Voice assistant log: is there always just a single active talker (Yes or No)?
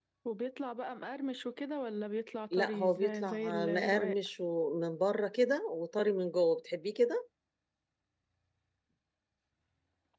No